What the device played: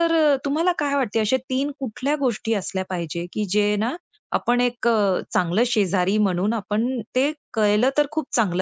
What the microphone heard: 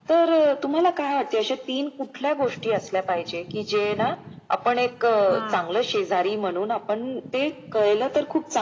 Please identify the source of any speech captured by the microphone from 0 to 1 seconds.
echo only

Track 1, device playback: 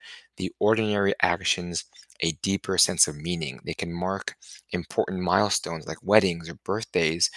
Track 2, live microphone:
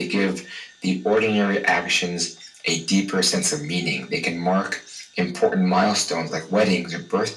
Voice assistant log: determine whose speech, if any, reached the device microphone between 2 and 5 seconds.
echo only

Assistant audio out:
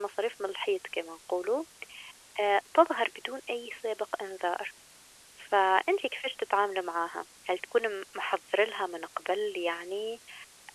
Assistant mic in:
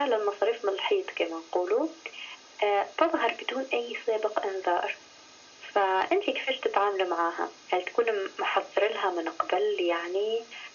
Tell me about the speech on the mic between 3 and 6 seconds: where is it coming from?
echo only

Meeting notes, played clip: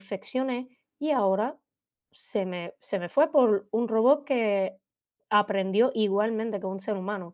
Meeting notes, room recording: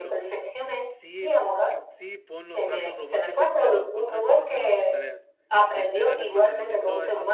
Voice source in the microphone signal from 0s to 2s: both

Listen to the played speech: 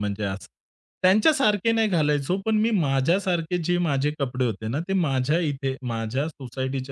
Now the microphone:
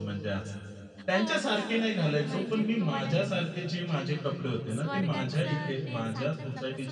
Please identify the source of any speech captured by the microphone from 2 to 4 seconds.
both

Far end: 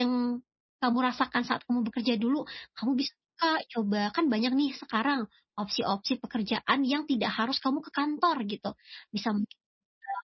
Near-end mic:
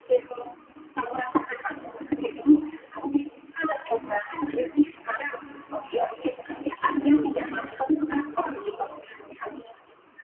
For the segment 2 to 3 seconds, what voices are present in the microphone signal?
echo only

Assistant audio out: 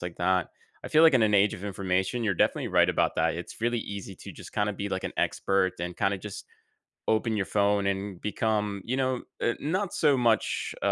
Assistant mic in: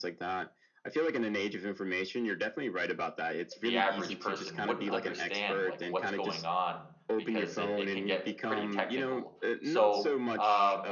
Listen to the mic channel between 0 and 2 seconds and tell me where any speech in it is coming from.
echo only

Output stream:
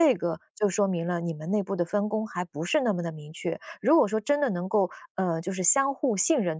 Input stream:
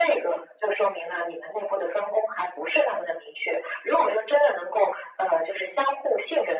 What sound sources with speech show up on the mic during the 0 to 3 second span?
echo only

